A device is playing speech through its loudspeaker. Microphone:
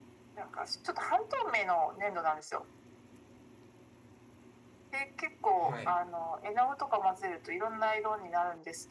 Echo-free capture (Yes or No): No